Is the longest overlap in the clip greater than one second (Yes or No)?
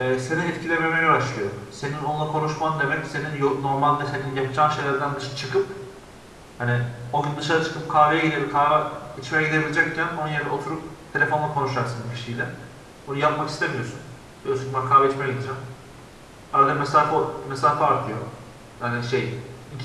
No